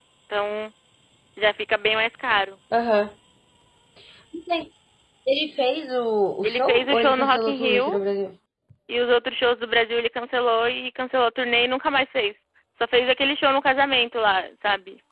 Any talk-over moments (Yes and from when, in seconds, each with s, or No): Yes, from 6.4 s